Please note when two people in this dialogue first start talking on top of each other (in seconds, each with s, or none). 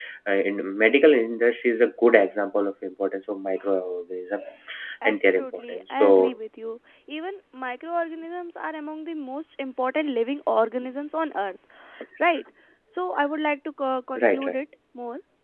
5.0 s